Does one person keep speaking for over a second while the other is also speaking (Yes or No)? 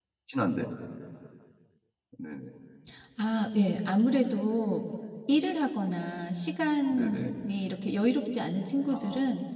No